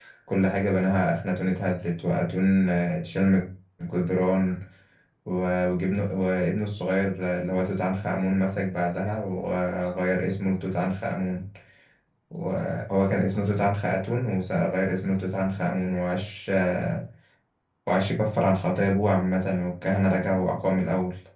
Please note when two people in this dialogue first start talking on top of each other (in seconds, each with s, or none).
none